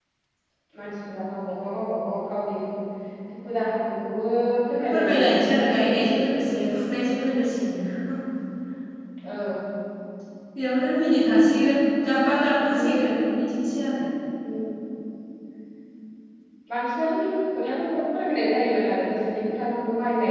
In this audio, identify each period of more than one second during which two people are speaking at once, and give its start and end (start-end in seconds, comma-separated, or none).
4.9-6.8